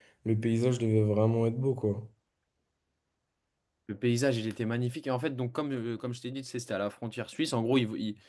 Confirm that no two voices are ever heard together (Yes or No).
Yes